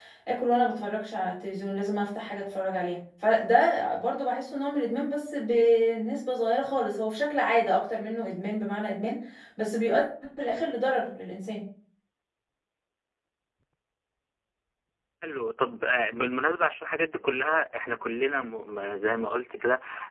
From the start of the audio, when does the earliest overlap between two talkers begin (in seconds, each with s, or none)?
none